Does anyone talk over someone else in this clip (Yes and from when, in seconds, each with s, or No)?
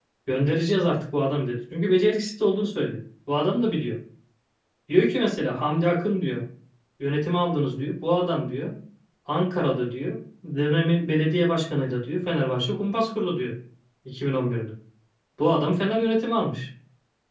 No